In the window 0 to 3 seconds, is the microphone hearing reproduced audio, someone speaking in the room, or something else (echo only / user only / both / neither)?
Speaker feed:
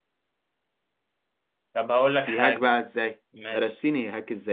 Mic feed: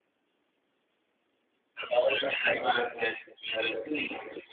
echo only